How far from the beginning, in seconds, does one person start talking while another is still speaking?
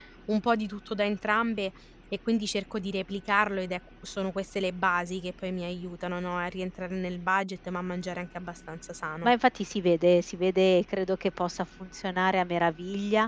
none

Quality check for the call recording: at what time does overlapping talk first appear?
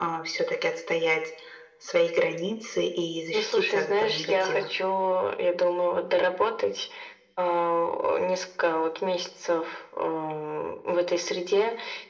3 s

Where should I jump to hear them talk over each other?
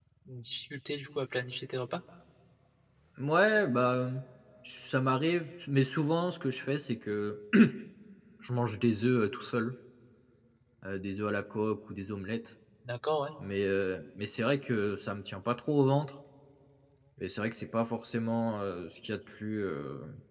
none

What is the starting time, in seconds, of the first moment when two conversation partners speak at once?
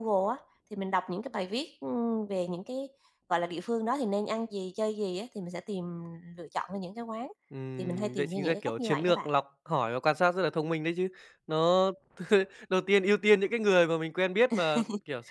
8 s

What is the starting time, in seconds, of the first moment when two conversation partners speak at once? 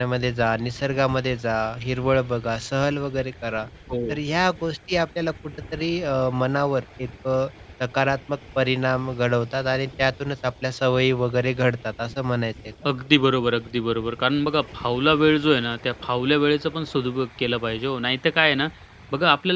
none

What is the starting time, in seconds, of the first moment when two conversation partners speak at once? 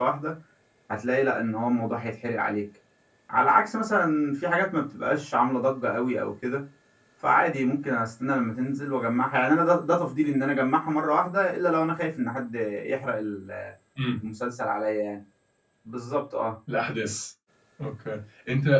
none

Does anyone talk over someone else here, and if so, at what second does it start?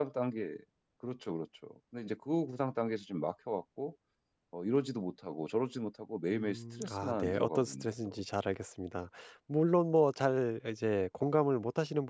6 s

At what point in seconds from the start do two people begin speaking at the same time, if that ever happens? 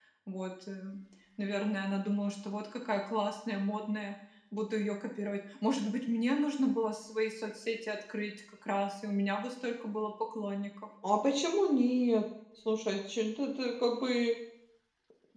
none

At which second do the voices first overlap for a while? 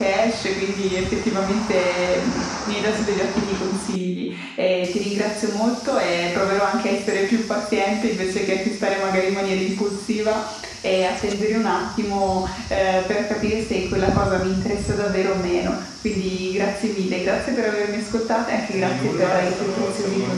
19 s

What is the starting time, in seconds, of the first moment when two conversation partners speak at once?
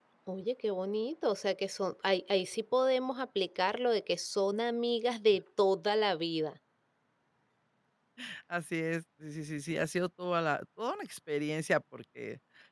none

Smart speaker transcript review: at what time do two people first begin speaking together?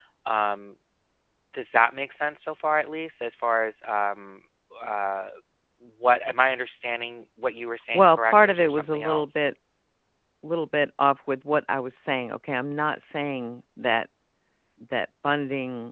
8 s

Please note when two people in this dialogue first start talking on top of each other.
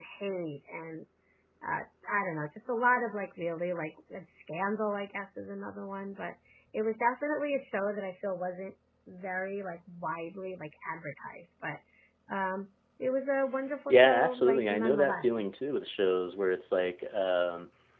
14 s

